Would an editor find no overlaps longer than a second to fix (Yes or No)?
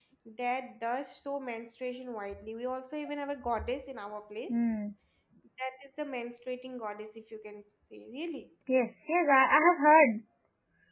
Yes